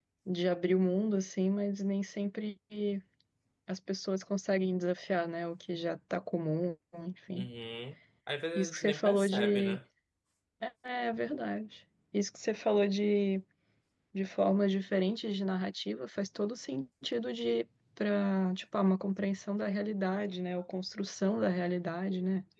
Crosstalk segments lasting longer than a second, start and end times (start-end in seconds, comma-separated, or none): 8.6-9.8